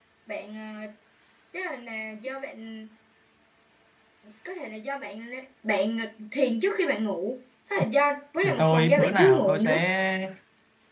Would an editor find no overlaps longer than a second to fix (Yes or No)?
No